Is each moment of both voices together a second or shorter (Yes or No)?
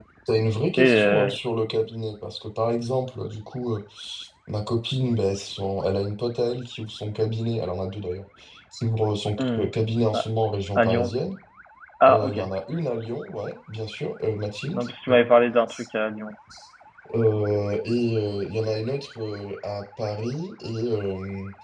Yes